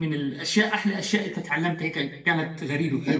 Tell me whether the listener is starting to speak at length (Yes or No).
Yes